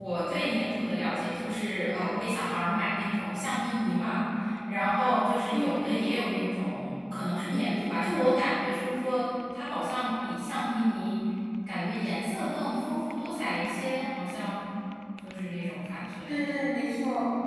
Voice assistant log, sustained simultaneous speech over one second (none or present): none